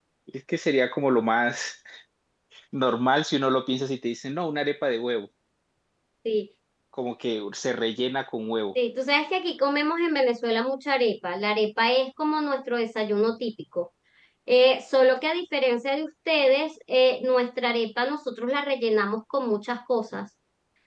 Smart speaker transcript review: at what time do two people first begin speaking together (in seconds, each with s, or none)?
none